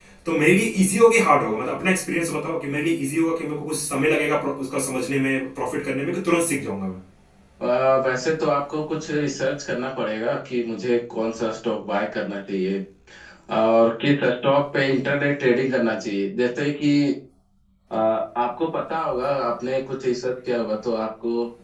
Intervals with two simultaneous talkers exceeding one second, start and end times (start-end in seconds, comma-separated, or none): none